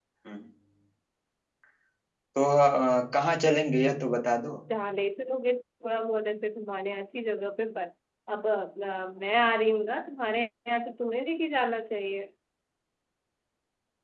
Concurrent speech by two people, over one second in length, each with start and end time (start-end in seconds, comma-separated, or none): none